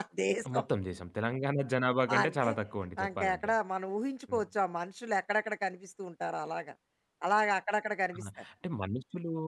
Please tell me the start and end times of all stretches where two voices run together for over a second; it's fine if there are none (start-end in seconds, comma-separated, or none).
none